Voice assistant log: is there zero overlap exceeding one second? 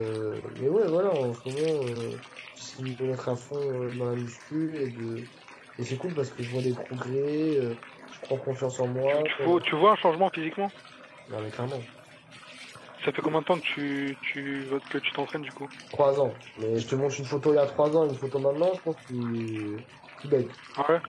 Yes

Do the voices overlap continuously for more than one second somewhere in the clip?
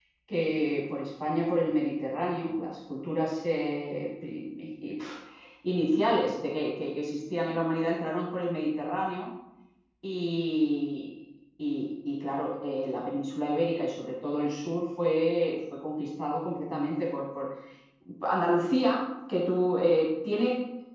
No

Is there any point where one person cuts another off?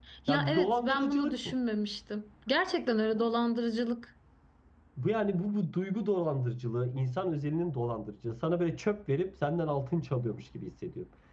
Yes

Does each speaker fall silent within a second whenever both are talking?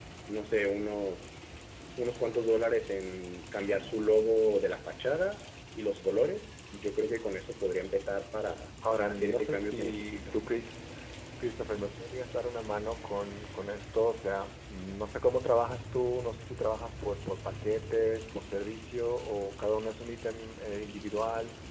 No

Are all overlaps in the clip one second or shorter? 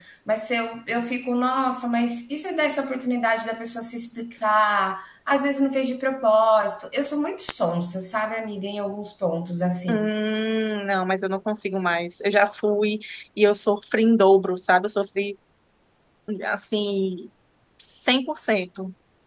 Yes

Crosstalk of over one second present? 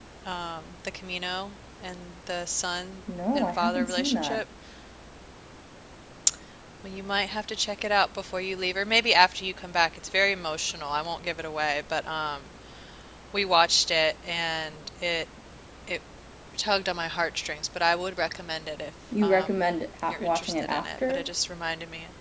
Yes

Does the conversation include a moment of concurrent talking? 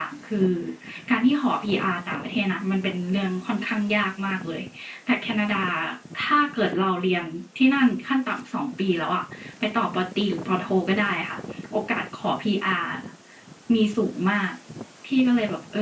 No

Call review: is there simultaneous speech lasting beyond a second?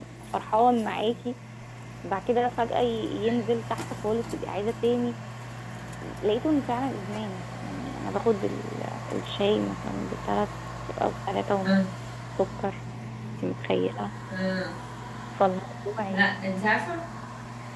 No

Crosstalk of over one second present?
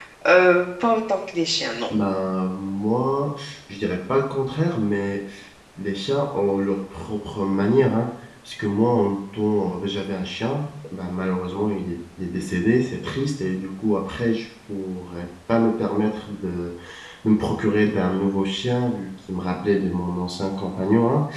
No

